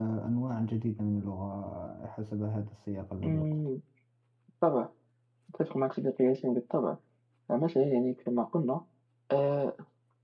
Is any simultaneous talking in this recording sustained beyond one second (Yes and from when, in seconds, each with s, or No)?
No